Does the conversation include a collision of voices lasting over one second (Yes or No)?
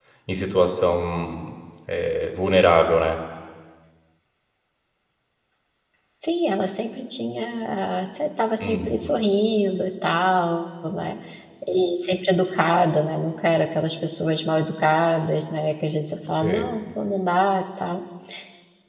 No